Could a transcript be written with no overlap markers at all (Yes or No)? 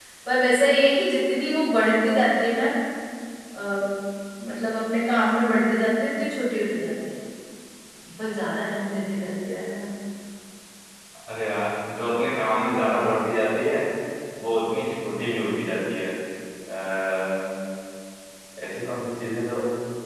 Yes